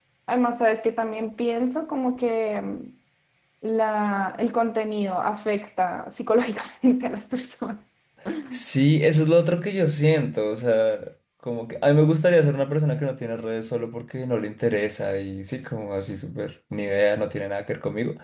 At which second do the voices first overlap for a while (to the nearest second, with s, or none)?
none